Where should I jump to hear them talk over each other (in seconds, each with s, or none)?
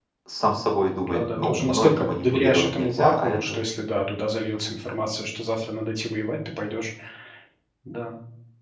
1.1 s